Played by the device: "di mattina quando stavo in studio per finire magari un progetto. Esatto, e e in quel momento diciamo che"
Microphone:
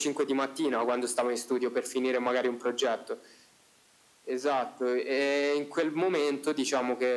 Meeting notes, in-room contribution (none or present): none